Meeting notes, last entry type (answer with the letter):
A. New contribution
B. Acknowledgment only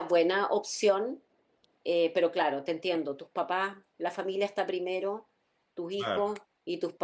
B